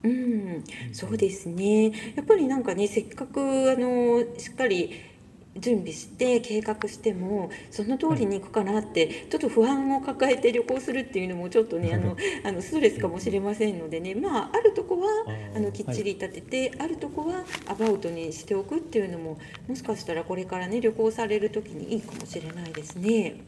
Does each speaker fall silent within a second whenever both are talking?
Yes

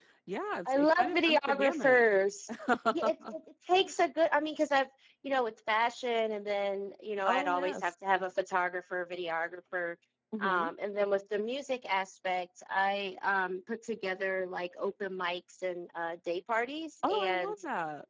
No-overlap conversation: No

